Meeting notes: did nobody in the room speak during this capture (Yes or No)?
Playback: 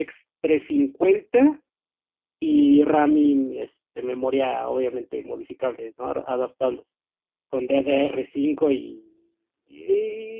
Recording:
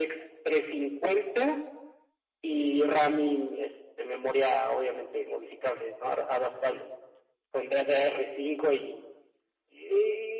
Yes